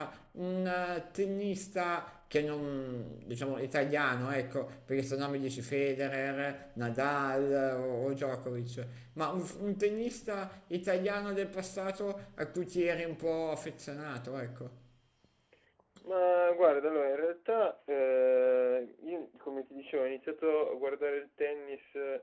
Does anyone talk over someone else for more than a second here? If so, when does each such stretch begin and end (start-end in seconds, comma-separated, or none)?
none